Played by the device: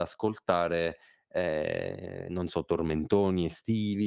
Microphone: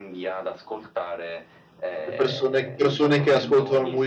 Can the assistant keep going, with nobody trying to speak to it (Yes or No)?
No